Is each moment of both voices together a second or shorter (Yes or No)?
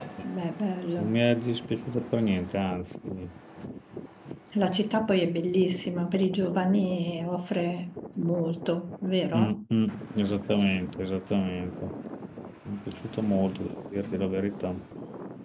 Yes